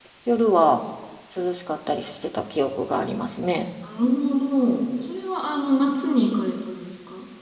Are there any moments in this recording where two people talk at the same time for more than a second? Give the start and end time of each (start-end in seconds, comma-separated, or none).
none